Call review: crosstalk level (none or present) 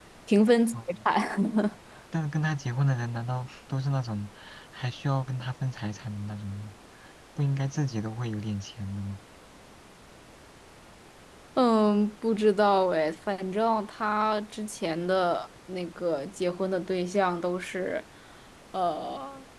none